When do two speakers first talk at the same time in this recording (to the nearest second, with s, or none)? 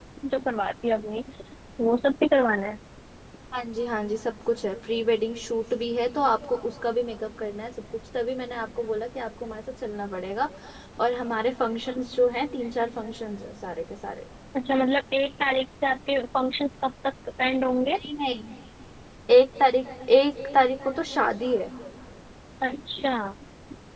none